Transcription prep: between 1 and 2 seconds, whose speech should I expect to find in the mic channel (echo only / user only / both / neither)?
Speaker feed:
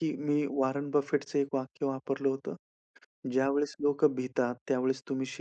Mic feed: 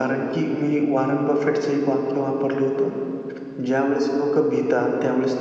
echo only